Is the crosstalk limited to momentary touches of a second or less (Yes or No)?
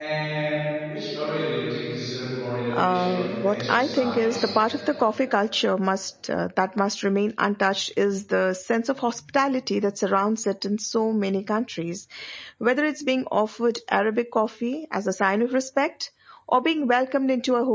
No